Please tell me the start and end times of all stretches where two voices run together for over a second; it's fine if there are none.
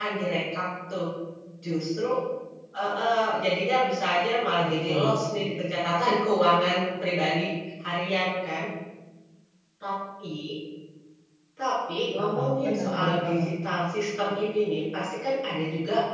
12.2-13.4

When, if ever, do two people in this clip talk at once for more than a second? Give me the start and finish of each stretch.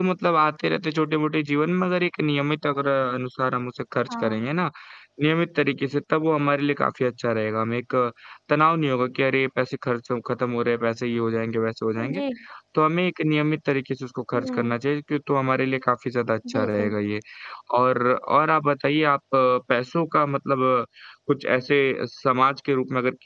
none

